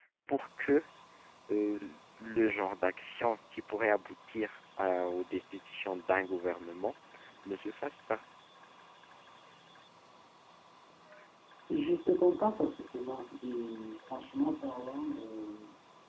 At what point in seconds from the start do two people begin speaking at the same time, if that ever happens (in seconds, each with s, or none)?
none